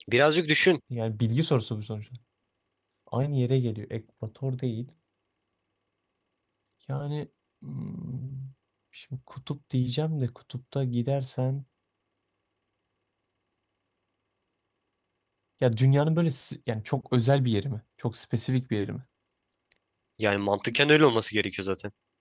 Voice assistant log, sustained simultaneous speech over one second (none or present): none